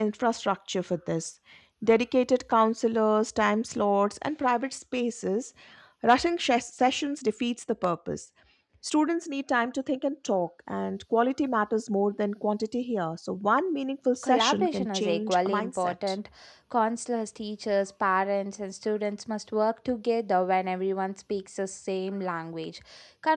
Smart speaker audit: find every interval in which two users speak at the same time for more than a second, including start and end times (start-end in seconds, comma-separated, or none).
14.2-15.9